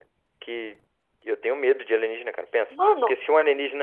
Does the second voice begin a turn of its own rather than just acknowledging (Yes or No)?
No